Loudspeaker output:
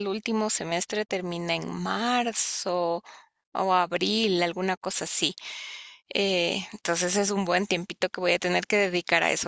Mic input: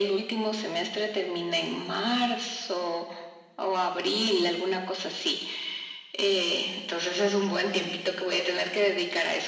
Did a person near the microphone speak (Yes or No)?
No